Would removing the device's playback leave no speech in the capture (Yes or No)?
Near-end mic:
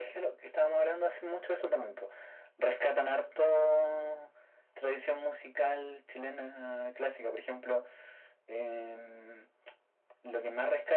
Yes